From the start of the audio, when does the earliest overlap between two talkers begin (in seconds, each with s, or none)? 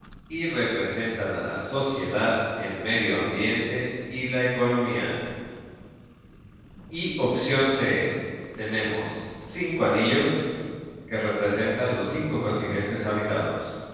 none